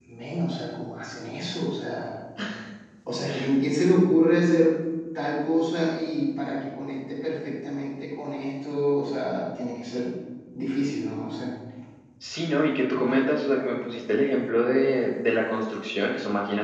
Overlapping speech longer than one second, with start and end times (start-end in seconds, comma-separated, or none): none